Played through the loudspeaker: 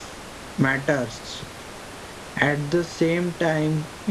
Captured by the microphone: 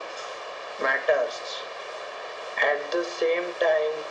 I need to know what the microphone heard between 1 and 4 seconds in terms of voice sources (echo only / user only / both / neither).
echo only